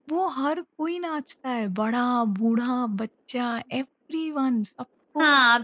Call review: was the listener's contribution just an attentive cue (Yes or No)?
No